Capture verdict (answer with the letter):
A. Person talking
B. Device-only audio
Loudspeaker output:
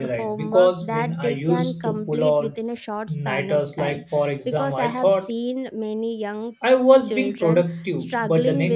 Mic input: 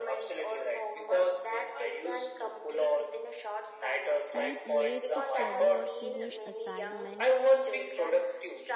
A